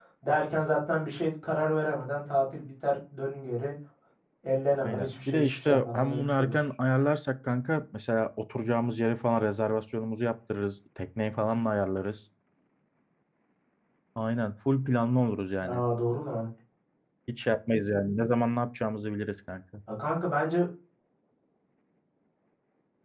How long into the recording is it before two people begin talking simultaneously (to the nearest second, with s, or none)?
5 s